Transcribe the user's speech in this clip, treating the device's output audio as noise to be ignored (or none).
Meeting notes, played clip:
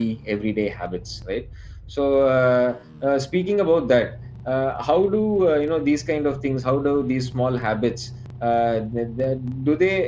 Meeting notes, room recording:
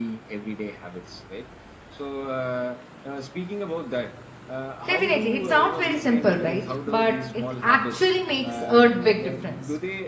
Definitely, it sounds very simple, right? But it actually makes a big difference.